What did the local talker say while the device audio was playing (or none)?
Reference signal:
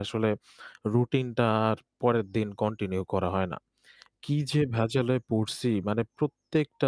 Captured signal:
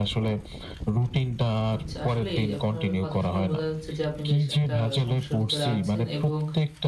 আচ্ছা। আসলেই আপনার কথা শুনে বোঝা যাচ্ছে যে আপনি বেশ একটা সমস্যার ভিতরে আছেন এবং